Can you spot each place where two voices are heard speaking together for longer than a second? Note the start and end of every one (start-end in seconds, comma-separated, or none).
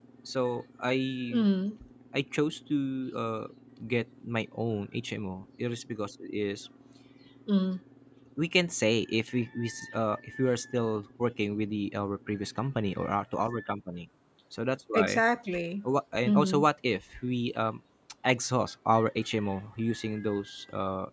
none